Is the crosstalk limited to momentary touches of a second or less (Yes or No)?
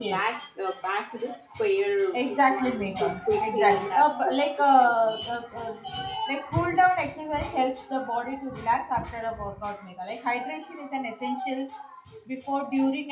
No